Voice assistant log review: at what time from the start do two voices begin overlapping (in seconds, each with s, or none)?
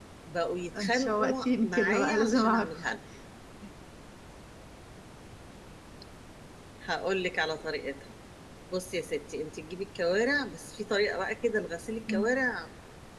0.7 s